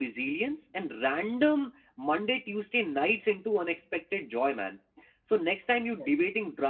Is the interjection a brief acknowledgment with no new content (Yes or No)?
Yes